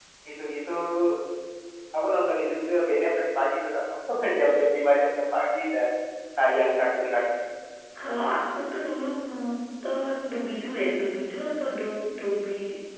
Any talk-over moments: No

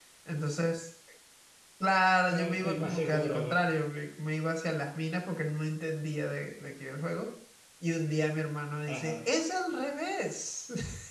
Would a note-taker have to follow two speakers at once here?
Yes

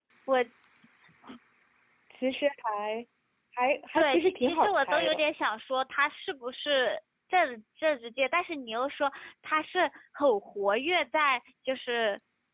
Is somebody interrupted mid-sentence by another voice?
Yes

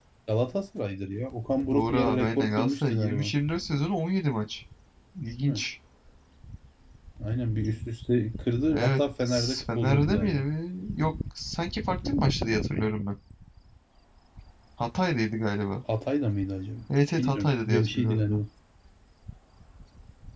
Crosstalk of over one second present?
Yes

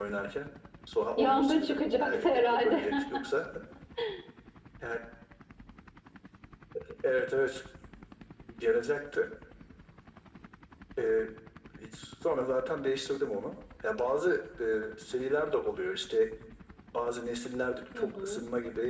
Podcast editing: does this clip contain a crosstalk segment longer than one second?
Yes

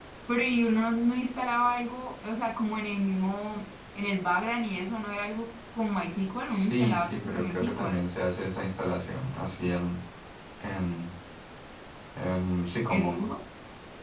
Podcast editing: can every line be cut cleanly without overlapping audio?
No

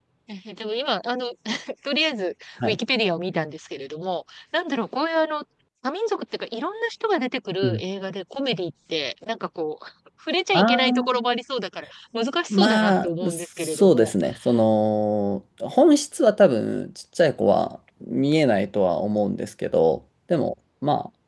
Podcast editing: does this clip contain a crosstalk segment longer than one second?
Yes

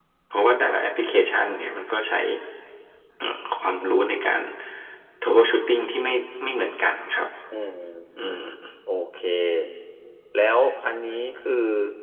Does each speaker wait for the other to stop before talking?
Yes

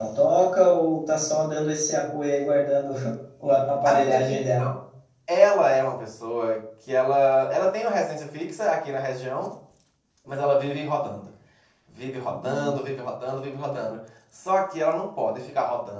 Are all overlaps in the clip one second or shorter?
Yes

